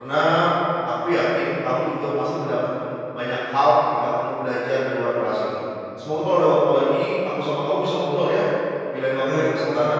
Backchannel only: No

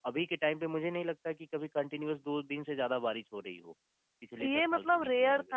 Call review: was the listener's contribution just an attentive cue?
No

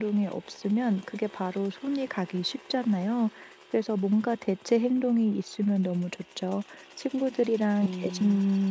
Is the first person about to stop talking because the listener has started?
No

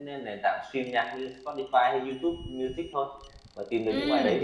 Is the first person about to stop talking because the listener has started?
Yes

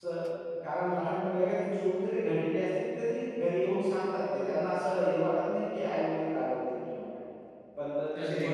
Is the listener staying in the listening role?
Yes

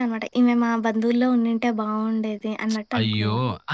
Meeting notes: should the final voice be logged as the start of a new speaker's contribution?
Yes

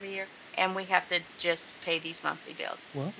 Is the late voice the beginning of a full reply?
Yes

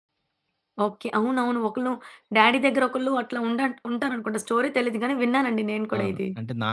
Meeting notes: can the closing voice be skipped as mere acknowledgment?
No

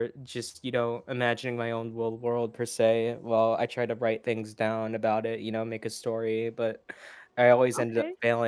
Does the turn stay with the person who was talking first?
Yes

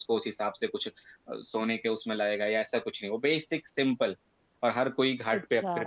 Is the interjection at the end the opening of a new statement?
Yes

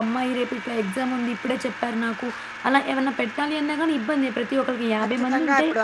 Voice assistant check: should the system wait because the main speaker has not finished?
No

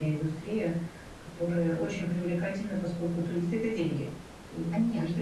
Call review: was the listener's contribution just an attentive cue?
No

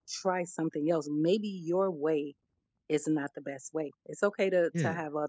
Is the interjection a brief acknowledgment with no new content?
Yes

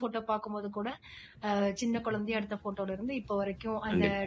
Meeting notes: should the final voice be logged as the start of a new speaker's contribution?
No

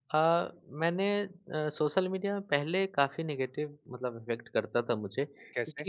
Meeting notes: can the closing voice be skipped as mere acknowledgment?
Yes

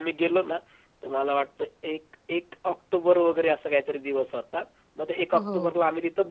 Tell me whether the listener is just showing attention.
Yes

